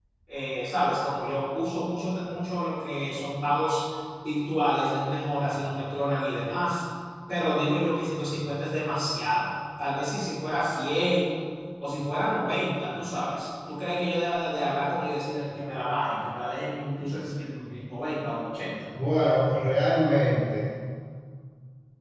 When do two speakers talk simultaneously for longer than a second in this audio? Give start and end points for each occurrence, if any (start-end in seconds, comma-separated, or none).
none